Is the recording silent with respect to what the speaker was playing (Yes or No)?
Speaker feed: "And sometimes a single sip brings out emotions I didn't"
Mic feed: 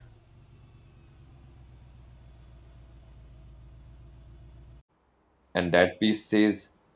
Yes